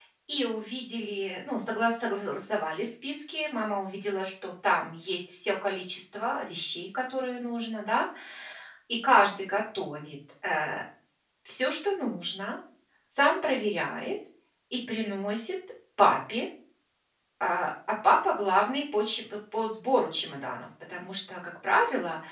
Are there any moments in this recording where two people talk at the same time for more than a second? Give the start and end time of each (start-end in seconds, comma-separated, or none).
none